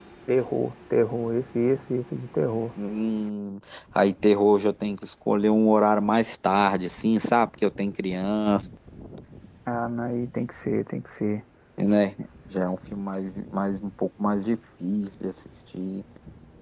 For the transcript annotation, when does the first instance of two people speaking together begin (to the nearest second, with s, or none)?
none